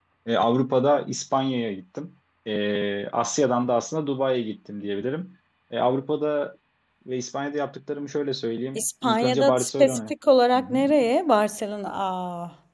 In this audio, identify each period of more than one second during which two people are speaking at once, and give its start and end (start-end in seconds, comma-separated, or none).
8.8-10.1